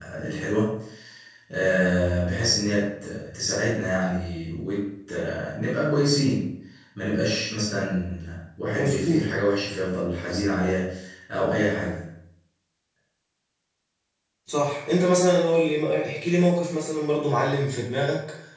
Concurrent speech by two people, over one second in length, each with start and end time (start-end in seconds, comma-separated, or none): none